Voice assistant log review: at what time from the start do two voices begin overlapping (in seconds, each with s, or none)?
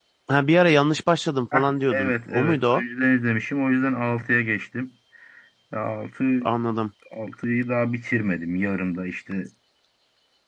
1.5 s